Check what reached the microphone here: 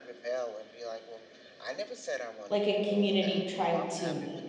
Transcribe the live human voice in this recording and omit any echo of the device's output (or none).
like, a community trying to